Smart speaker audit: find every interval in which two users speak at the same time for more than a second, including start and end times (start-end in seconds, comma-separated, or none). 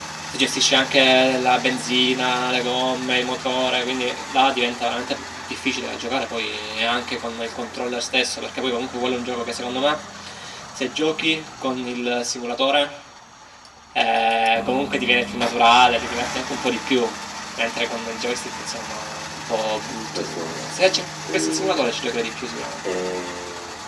20.1-21.8